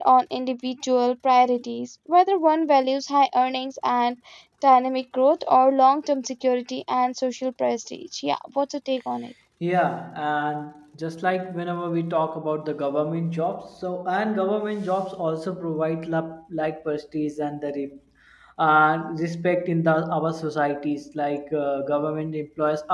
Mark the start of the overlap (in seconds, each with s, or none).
none